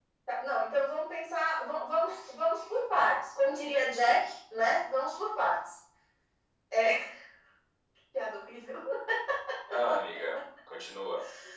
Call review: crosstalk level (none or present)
none